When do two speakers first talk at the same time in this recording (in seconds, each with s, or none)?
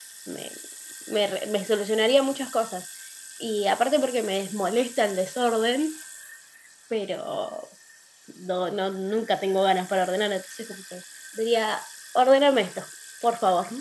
none